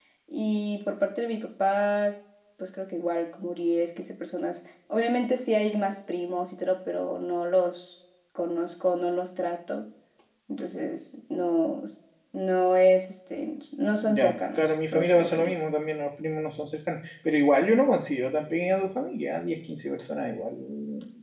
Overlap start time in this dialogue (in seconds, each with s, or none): 14.0 s